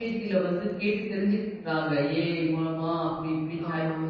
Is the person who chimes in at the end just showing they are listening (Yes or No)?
Yes